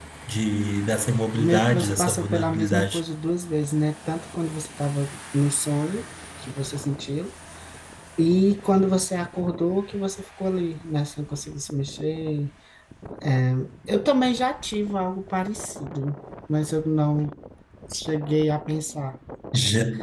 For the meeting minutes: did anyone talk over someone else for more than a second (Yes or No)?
Yes